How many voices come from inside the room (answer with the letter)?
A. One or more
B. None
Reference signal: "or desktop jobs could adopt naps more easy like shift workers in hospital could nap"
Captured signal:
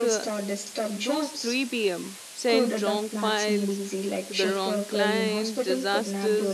A